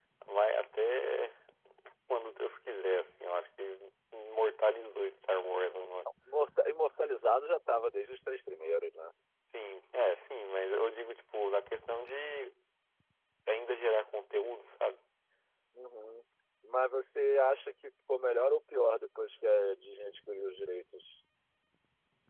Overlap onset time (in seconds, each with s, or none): none